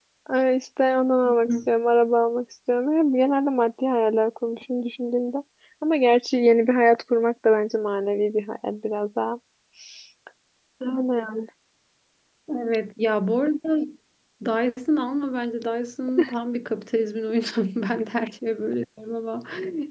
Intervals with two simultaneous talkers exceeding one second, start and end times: none

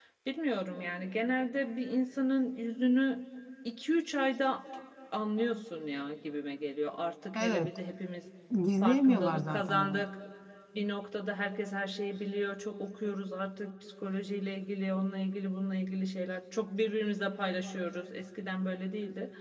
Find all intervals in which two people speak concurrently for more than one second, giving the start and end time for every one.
8.8-10.0

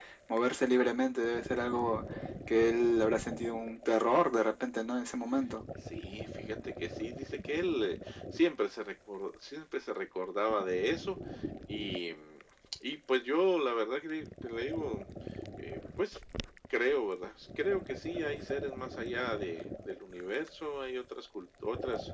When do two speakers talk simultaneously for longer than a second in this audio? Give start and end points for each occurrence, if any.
none

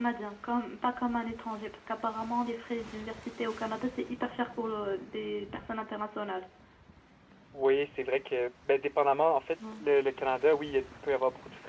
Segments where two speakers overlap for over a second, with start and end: none

